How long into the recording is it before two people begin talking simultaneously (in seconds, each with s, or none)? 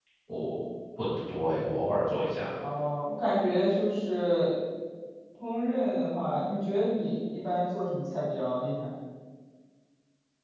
none